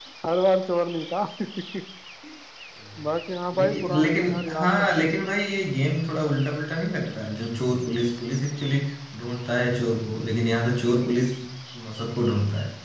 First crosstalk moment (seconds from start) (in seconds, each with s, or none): 3.5 s